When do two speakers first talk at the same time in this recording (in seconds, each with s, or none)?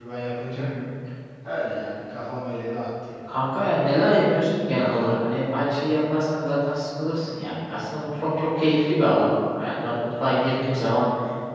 none